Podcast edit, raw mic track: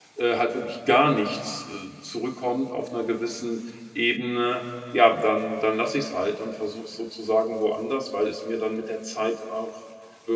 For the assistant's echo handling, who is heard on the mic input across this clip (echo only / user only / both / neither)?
user only